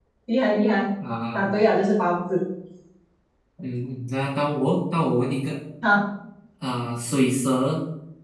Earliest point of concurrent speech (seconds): none

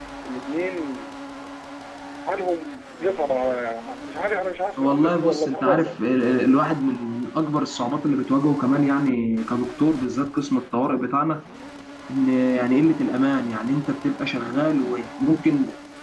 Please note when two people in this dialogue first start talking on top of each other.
5 s

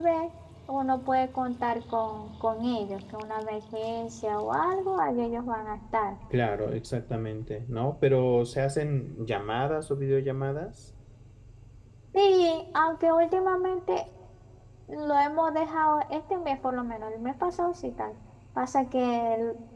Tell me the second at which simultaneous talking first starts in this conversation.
none

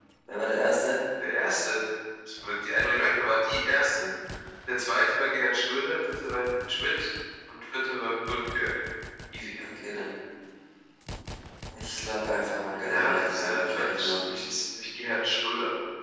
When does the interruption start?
13 s

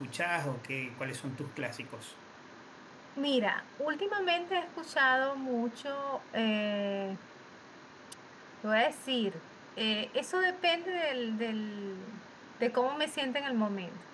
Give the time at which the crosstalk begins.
none

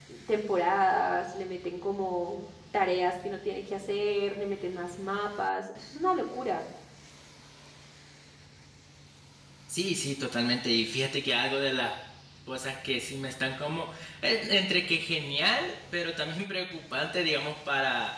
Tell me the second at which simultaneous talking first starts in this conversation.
none

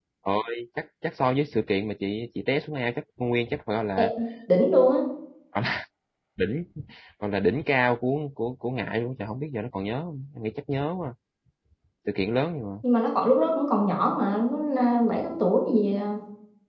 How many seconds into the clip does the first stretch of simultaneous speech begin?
none

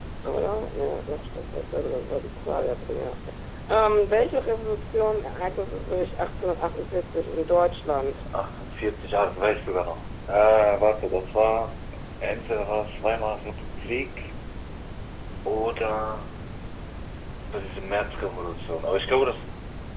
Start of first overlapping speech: none

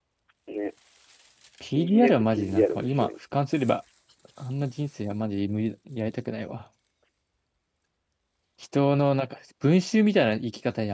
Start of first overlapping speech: 2 s

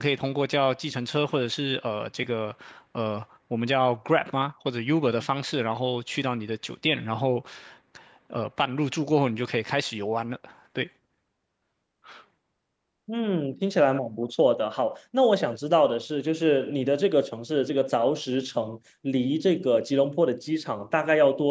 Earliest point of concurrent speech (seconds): none

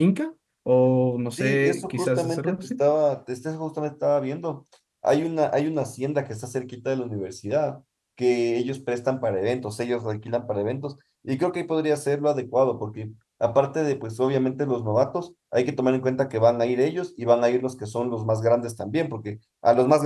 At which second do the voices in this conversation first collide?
1 s

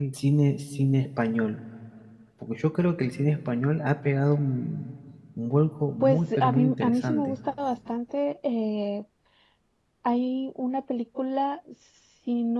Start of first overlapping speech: 6 s

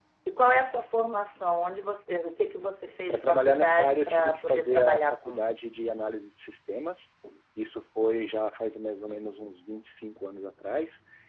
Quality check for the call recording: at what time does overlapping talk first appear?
3 s

